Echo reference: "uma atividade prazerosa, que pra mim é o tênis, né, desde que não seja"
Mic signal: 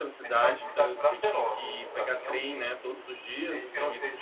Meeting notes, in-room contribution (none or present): present